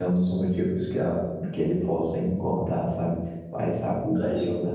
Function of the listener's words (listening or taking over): listening